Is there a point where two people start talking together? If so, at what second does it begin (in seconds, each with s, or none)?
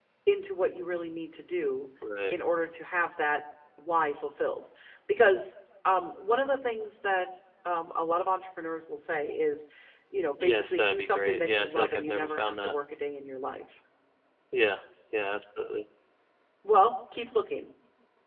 10.4 s